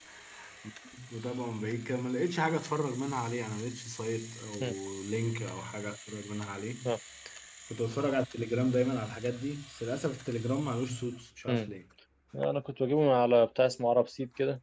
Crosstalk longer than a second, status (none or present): none